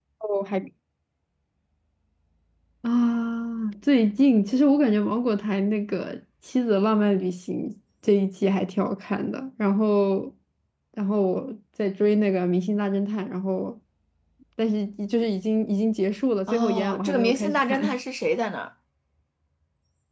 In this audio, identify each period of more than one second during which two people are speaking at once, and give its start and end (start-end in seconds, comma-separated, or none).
16.5-18.0